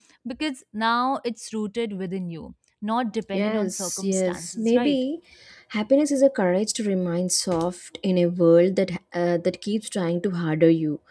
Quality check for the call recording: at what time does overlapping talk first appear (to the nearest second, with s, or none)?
3 s